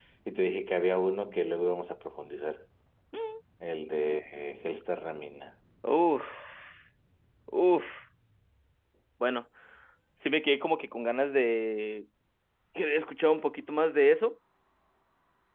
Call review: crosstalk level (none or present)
none